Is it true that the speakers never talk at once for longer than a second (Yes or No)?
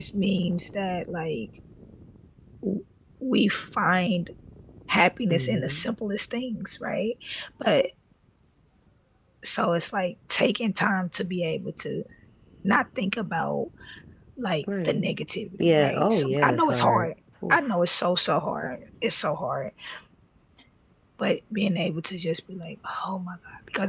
No